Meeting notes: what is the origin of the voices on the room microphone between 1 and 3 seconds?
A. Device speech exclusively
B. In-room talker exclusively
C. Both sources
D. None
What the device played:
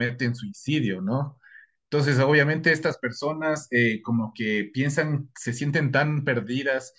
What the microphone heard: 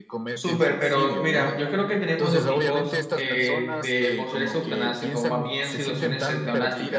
C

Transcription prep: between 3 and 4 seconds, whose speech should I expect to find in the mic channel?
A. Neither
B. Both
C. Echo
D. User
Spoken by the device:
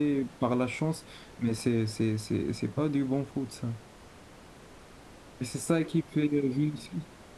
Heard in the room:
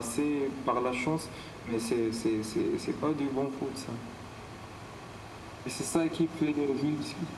C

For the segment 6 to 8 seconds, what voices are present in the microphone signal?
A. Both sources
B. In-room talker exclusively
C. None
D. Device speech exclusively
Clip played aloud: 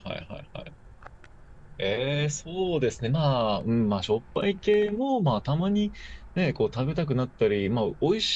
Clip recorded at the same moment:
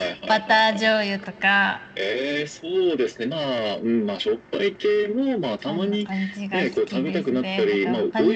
A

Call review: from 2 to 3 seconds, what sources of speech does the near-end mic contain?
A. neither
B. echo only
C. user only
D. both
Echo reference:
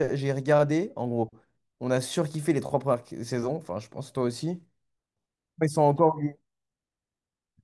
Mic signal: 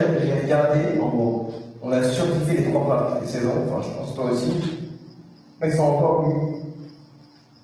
B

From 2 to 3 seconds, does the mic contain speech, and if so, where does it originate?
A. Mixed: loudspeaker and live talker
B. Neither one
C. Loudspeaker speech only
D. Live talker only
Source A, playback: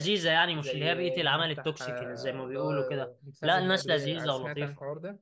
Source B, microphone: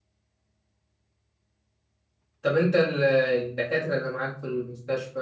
D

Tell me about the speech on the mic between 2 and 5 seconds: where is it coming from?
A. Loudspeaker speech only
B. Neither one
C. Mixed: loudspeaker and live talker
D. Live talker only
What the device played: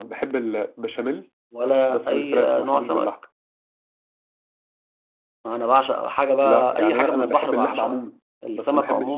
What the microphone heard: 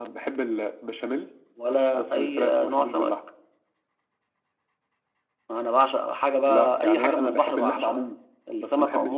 A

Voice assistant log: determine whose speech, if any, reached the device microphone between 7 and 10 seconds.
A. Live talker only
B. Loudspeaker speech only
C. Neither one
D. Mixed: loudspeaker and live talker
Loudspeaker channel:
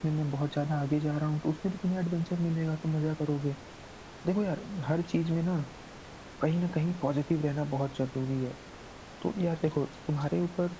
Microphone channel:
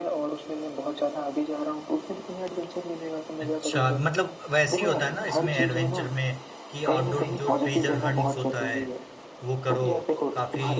D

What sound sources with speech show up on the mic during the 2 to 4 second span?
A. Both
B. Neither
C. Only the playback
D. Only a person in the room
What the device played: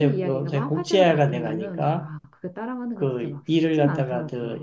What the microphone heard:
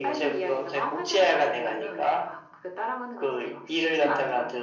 C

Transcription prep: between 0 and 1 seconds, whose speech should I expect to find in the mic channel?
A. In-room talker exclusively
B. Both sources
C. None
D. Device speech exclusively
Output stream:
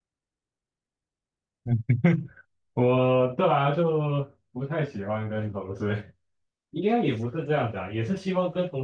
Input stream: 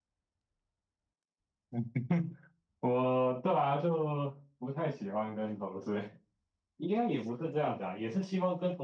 C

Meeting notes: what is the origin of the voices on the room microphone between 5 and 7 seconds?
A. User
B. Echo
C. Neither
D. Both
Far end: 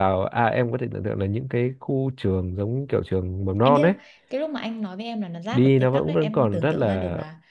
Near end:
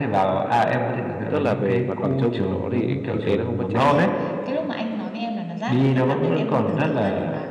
B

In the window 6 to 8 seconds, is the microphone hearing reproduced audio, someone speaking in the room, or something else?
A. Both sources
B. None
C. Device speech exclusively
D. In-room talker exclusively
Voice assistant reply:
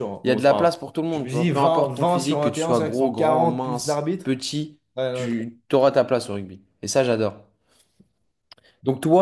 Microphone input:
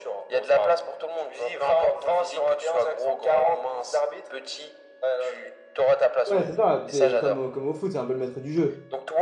A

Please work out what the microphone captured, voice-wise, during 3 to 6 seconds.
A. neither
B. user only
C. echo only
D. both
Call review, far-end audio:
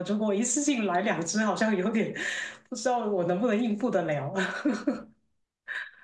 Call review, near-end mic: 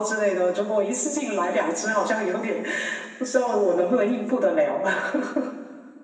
C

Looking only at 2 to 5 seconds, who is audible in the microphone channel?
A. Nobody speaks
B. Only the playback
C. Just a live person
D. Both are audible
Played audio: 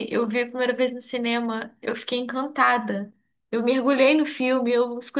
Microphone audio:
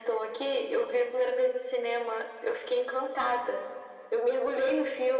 B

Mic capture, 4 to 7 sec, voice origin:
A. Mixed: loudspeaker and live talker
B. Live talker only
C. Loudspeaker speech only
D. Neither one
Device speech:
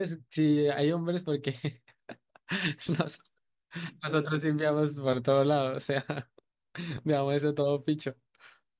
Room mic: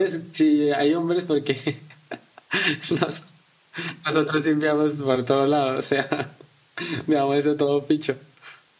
C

